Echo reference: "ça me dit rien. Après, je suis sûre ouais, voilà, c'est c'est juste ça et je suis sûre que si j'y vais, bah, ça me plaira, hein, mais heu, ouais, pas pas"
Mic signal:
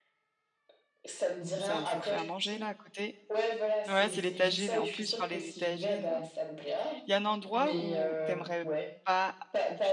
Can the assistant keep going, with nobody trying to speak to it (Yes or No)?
No